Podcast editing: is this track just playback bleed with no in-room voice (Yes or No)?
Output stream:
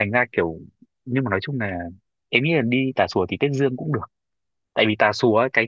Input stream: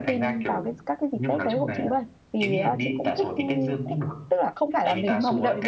No